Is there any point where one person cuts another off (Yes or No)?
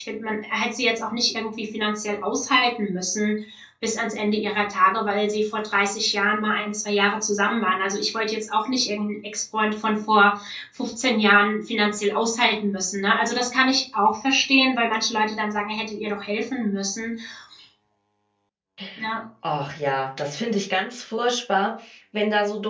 No